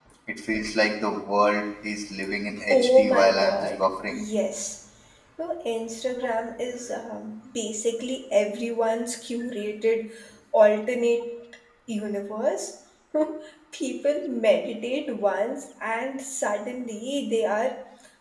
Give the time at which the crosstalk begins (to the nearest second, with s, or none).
3 s